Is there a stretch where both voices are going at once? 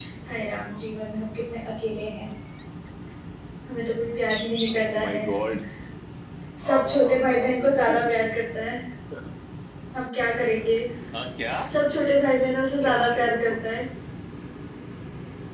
Yes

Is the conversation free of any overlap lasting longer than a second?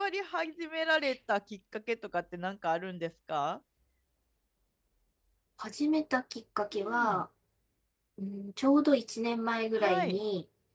Yes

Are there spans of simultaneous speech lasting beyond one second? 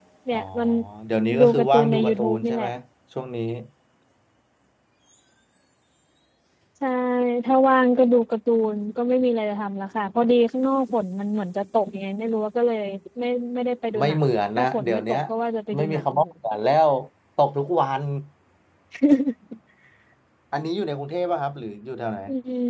Yes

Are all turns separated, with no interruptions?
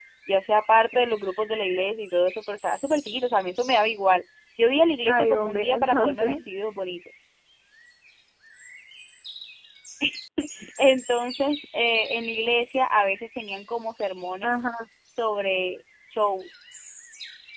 No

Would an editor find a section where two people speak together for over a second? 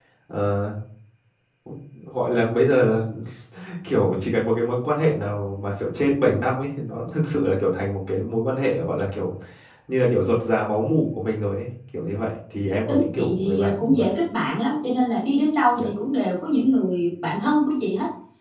Yes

